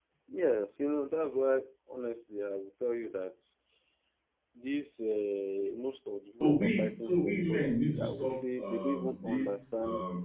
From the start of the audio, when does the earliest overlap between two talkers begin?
6.4 s

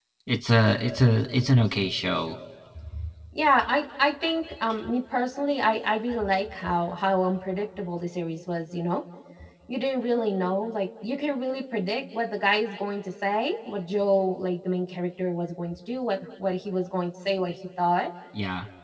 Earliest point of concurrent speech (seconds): none

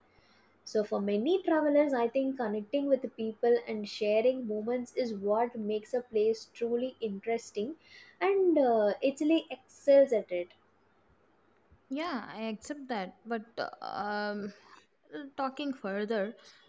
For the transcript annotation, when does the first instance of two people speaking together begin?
none

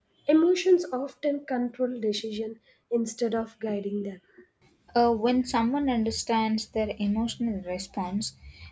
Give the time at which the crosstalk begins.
none

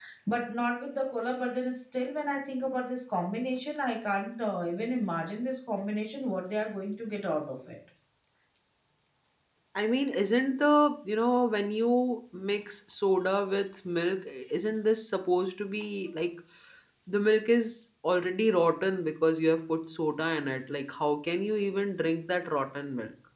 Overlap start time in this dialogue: none

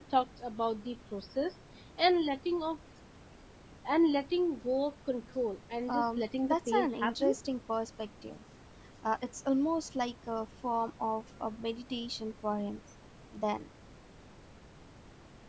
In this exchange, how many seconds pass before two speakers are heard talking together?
5.9 s

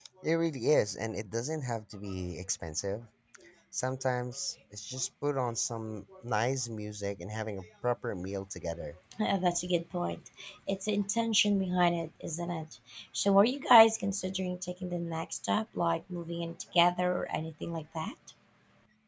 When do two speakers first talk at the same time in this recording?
none

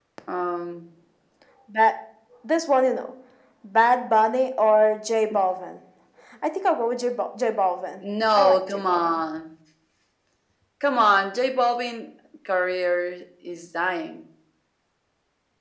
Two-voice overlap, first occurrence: 8.0 s

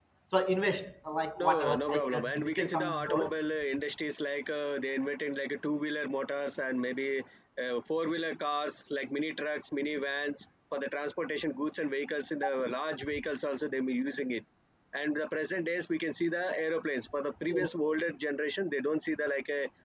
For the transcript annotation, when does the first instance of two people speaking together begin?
1.4 s

